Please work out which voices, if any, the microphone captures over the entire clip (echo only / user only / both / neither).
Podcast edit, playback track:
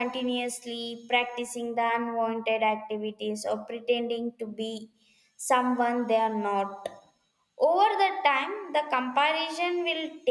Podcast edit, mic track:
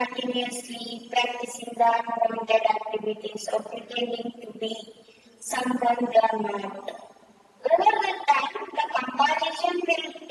echo only